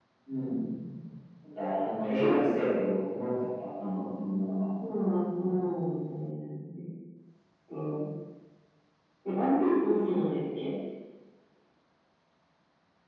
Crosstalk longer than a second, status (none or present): none